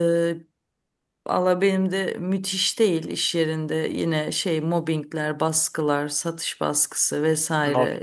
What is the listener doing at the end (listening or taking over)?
listening